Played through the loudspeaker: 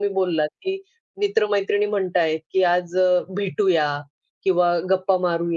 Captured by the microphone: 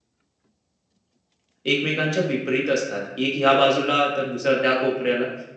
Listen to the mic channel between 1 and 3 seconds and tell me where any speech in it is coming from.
user only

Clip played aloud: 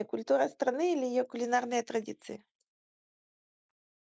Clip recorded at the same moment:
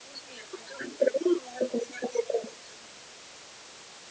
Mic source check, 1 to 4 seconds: echo only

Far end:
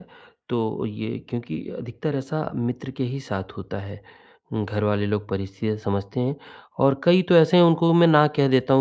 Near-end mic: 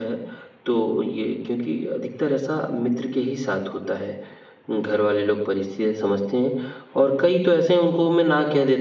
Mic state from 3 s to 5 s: echo only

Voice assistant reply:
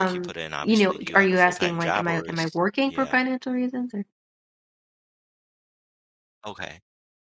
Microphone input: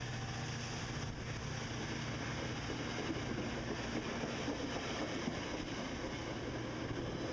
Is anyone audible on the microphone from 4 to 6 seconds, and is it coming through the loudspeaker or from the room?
neither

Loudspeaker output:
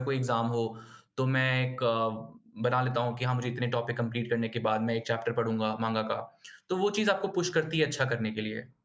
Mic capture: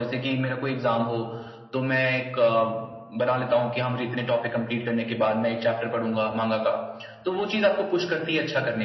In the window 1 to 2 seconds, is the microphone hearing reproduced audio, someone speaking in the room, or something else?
echo only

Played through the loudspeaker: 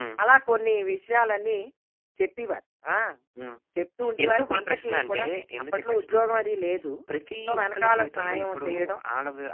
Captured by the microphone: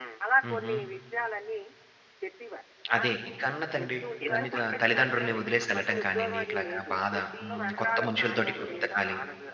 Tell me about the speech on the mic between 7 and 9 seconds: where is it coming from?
both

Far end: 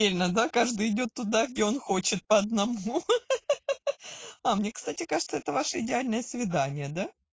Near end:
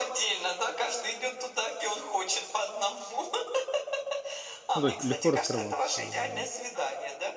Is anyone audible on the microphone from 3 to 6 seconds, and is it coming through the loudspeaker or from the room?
both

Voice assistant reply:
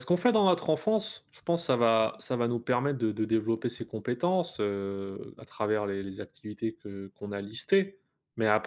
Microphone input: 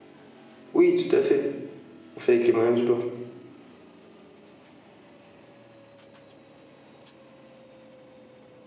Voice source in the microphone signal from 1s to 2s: user only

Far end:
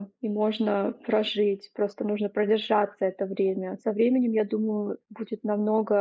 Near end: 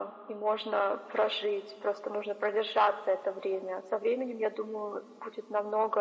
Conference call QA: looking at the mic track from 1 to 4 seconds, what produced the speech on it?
echo only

